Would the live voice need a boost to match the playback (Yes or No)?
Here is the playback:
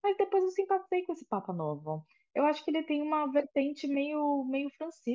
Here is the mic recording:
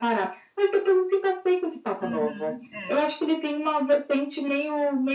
Yes